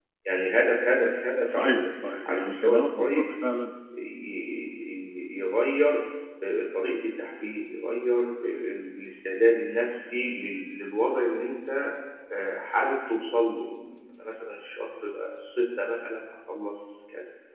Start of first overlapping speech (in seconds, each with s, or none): 1.5 s